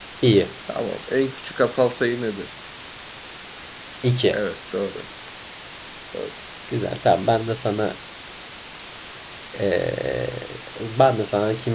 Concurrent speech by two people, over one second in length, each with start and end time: none

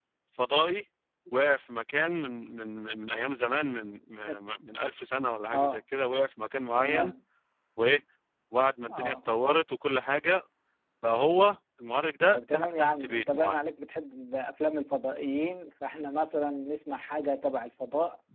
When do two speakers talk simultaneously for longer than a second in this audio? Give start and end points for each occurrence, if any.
12.3-13.6

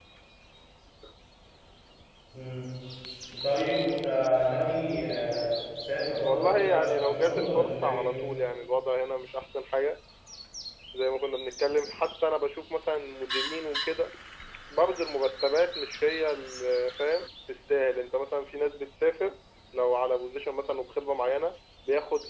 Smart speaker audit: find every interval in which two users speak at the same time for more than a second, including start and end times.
6.2-8.1

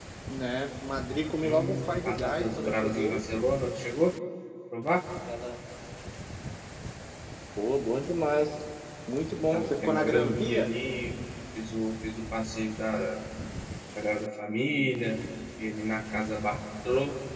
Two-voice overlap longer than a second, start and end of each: 1.4-3.3, 9.5-10.7

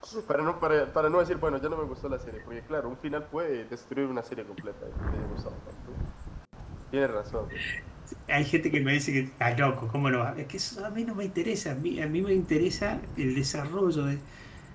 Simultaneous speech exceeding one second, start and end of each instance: none

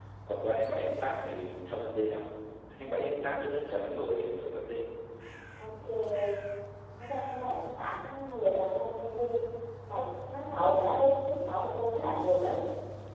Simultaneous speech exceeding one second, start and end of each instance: none

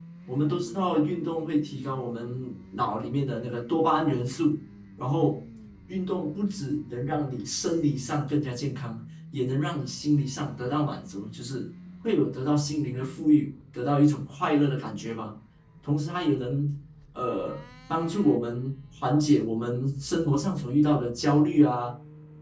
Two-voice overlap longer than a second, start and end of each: none

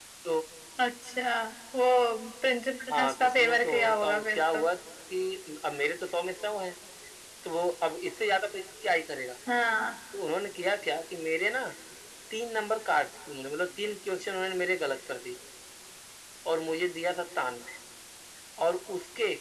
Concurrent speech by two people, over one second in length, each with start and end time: 2.9-4.6

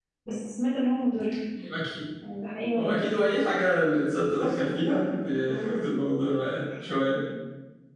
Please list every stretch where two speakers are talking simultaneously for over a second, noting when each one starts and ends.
none

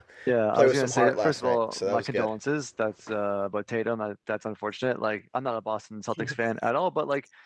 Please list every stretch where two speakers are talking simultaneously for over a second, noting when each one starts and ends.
0.5-2.3

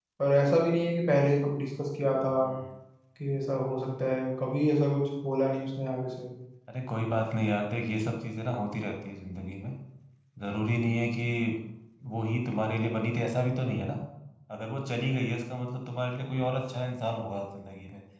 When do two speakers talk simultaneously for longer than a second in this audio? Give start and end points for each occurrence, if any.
none

